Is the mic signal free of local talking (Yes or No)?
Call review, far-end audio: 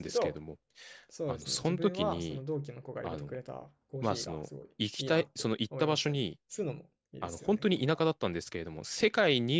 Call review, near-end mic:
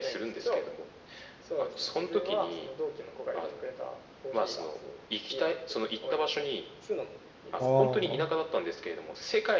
No